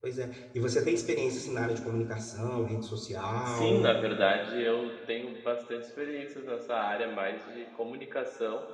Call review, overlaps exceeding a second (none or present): none